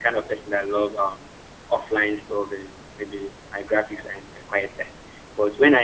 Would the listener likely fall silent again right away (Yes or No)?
Yes